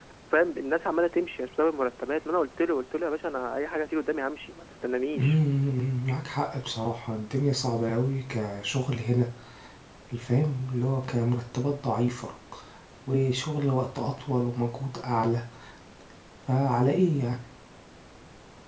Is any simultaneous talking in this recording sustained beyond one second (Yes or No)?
No